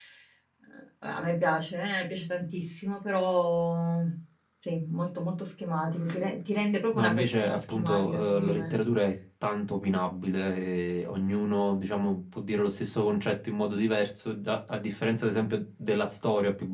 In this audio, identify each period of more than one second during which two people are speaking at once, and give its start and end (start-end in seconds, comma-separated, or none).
6.9-8.7